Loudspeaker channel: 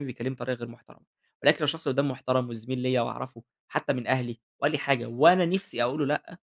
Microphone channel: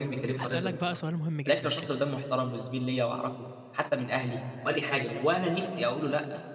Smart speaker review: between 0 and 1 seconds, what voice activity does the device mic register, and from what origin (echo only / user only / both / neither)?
both